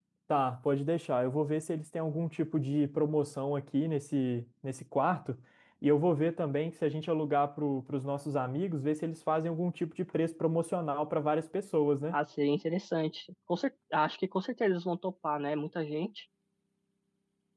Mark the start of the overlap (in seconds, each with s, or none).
none